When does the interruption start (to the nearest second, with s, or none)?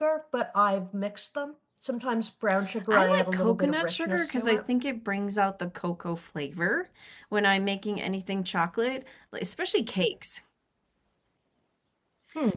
3 s